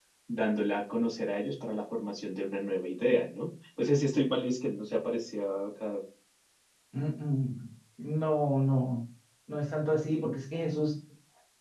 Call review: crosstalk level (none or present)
none